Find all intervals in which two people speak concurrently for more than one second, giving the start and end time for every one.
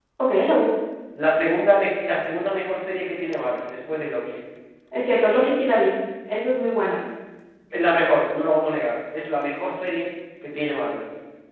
none

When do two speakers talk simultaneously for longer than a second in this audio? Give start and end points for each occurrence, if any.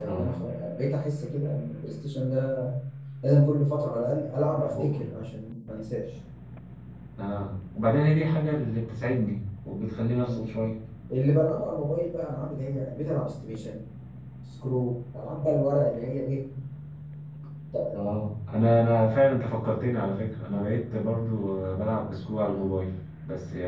none

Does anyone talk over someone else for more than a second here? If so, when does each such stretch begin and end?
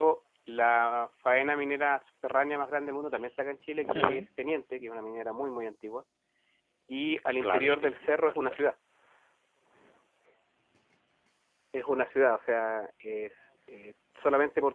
7.4-8.6

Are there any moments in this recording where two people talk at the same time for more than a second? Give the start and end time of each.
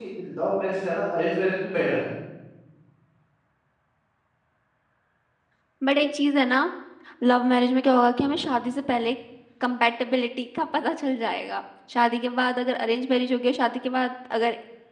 none

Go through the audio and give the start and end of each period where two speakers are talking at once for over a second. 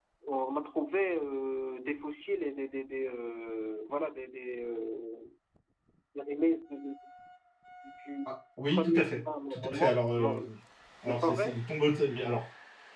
8.7-10.4

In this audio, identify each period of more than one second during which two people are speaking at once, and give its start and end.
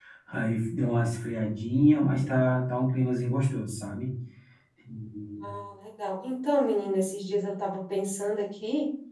none

